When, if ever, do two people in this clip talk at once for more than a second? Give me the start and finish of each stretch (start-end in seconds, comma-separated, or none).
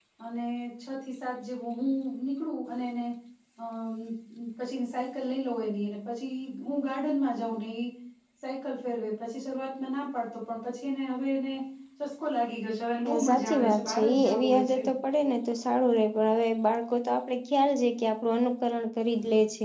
13.1-14.8